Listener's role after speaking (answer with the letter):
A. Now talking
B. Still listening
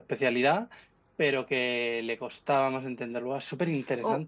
A